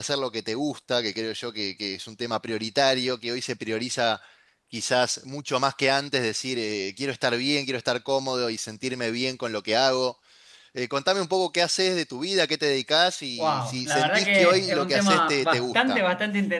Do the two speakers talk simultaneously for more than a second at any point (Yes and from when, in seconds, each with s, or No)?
Yes, from 13.4 s